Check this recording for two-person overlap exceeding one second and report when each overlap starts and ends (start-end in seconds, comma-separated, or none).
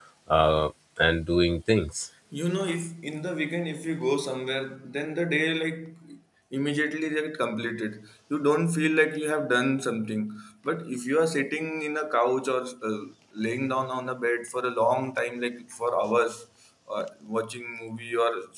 none